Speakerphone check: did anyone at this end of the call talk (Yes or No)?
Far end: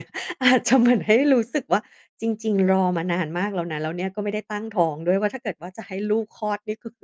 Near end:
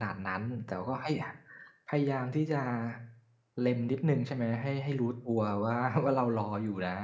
Yes